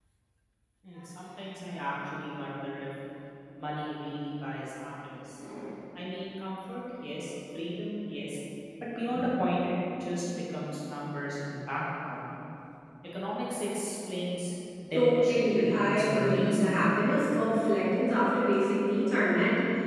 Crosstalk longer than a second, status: present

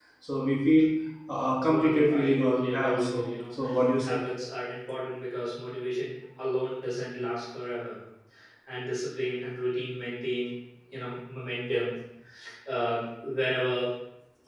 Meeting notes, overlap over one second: present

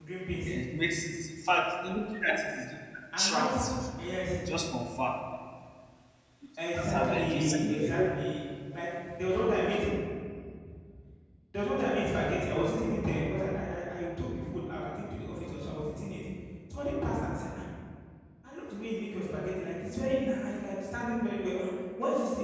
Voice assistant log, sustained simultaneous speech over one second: present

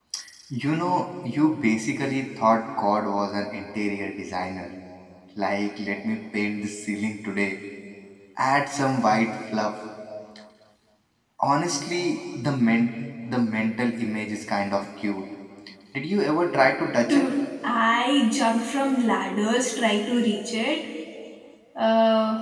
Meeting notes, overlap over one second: none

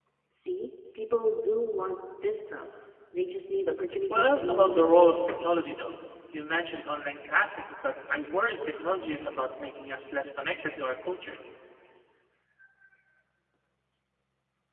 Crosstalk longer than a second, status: present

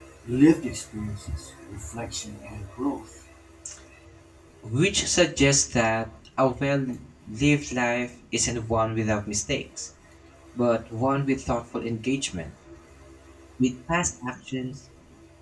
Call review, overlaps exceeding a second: none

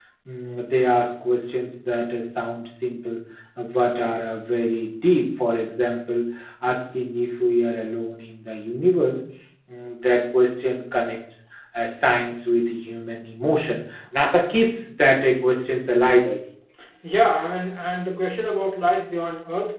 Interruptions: none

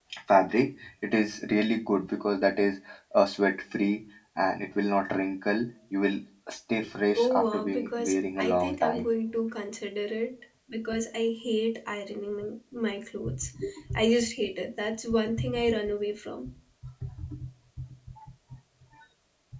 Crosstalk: present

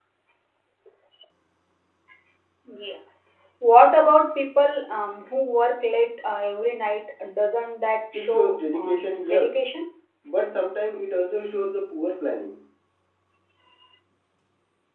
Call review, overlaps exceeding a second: present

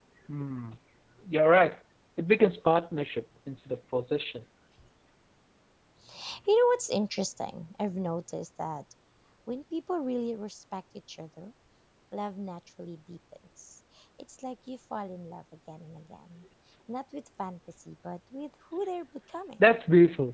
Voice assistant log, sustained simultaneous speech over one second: none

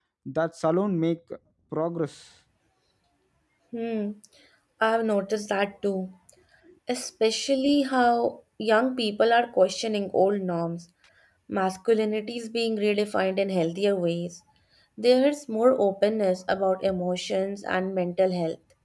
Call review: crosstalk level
none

